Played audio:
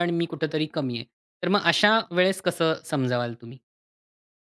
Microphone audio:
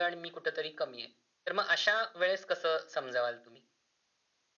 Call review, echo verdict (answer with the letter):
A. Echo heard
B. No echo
A